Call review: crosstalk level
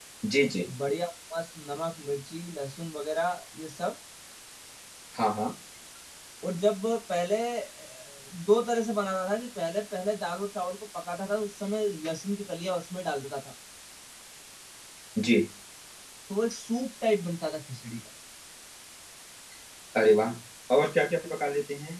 none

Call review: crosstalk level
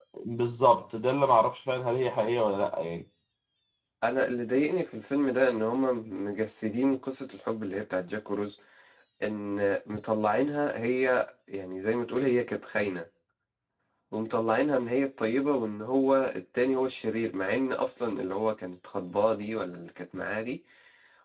none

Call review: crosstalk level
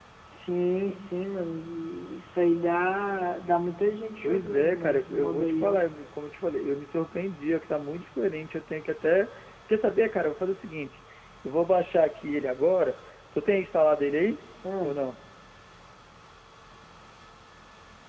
present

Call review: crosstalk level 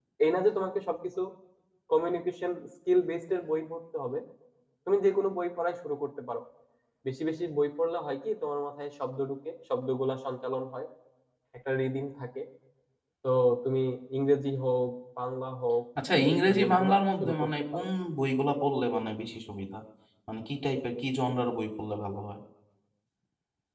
present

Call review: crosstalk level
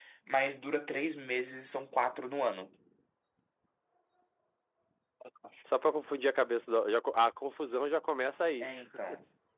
none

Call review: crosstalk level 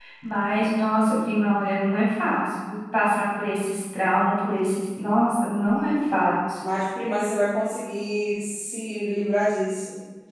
none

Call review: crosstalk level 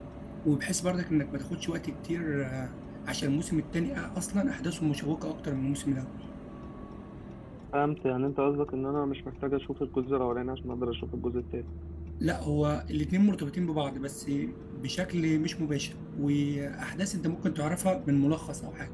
none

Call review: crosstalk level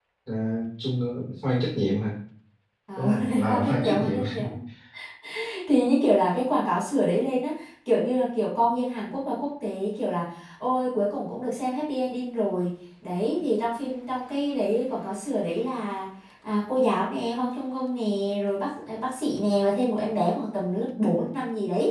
present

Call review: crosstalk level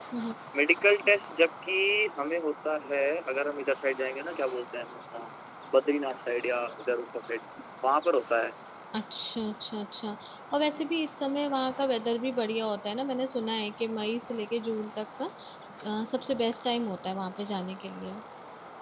none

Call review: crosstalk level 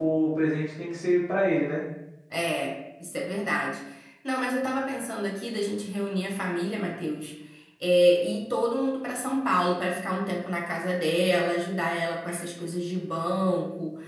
none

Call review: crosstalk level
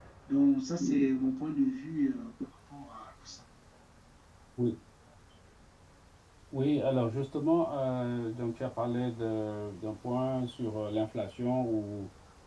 none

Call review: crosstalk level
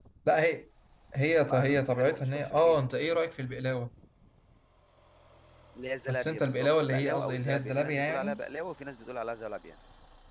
present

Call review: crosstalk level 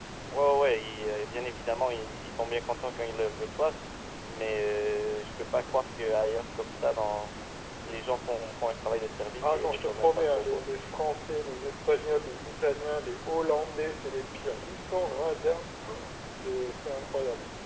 present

